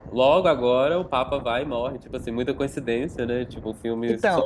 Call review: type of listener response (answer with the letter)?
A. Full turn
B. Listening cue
B